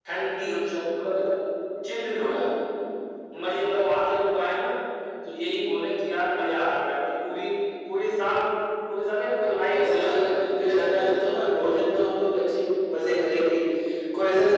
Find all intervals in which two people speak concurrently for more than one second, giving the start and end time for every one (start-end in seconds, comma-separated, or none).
9.5-11.2